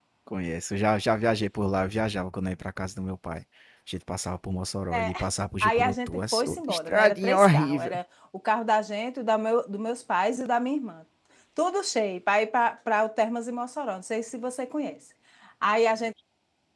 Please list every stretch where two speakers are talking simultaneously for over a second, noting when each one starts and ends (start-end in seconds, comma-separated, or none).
5.6-8.0